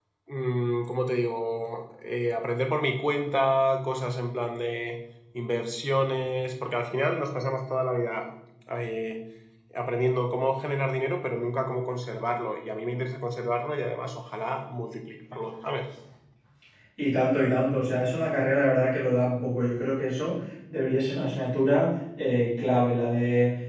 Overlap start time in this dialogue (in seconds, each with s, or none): none